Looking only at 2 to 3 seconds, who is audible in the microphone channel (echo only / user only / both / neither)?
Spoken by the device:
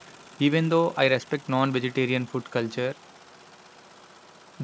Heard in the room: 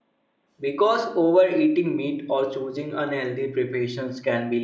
user only